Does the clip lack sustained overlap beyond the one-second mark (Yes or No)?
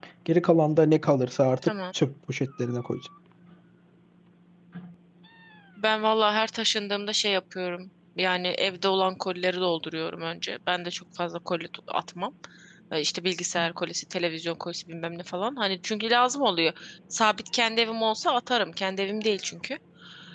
Yes